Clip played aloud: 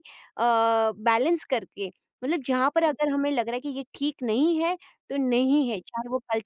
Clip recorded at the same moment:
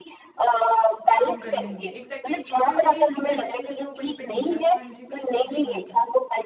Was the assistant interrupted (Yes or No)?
Yes